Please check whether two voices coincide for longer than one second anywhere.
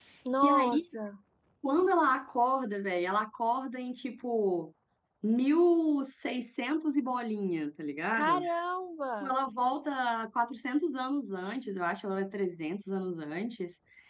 No

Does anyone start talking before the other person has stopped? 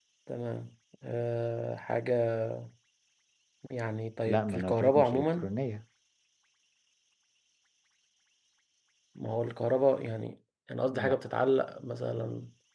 Yes, from 4.3 s

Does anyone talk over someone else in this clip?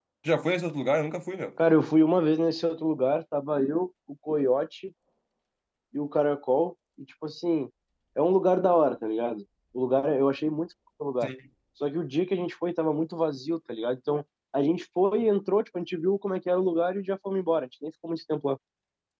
No

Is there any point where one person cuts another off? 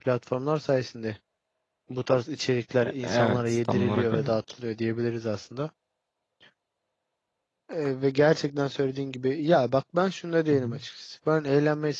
Yes, from 3.0 s

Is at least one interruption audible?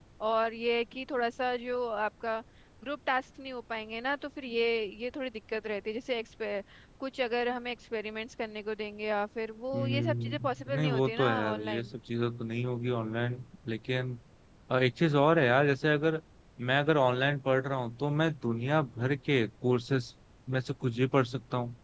Yes, from 9.7 s

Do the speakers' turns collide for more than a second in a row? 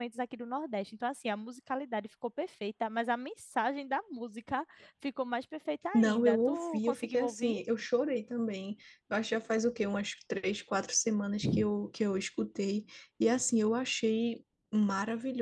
Yes, from 5.9 s

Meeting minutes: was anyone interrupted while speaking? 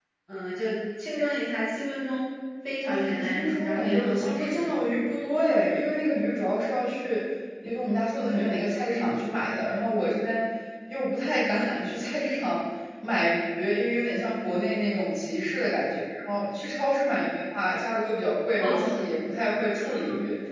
Yes, from 2.8 s

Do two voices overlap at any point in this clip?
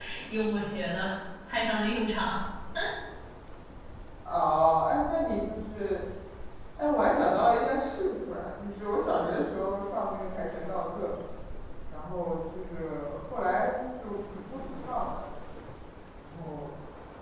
No

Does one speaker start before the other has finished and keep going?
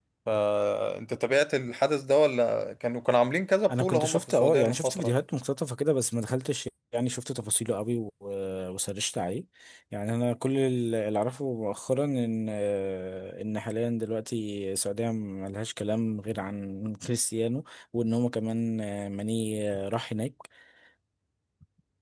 Yes, from 3.7 s

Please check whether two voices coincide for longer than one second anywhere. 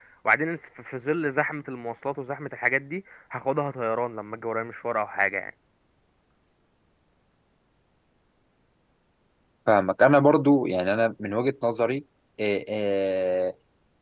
No

